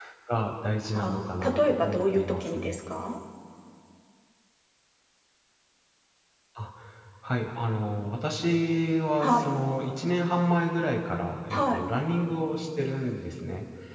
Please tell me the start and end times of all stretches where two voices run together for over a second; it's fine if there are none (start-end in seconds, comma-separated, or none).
0.9-2.8